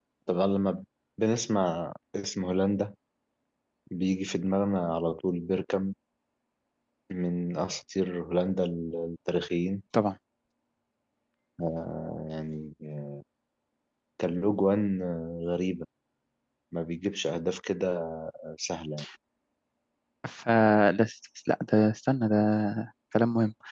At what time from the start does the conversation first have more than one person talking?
none

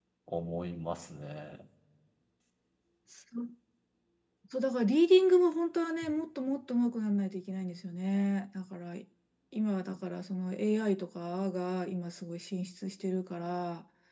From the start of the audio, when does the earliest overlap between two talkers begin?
none

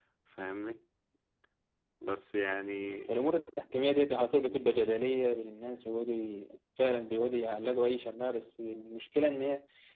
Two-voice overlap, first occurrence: none

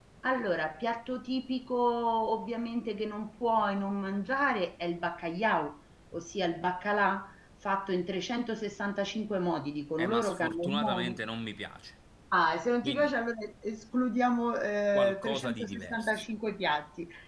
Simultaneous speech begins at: 10 s

